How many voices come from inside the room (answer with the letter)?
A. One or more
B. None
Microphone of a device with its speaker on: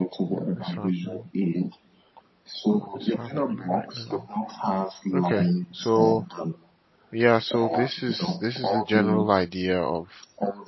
A